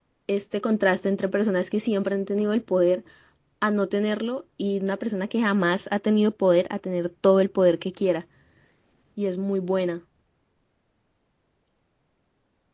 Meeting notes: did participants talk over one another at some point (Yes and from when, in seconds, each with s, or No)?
No